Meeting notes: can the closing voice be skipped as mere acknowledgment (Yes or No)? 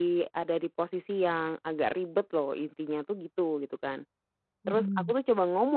Yes